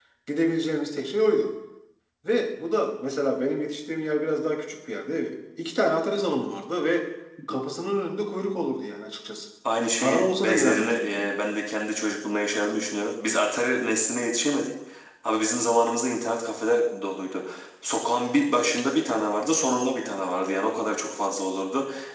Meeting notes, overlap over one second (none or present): present